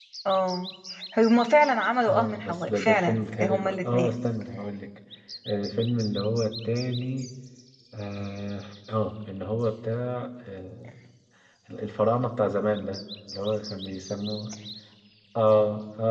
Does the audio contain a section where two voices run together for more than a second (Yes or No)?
Yes